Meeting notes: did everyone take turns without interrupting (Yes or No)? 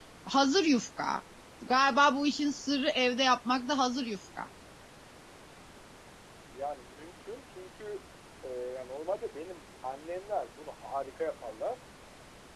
Yes